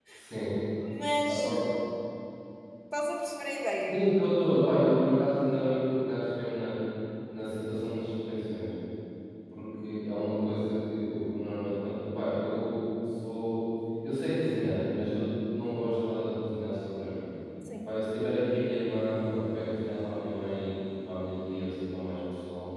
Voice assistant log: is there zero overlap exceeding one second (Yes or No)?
Yes